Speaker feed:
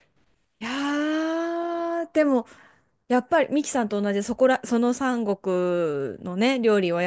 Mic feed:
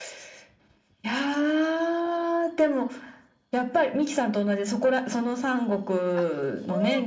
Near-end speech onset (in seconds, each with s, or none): 6.1 s